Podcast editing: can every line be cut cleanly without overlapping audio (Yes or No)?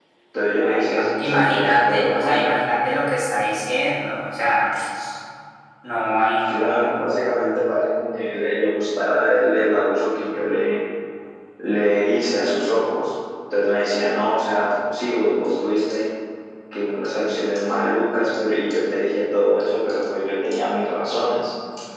No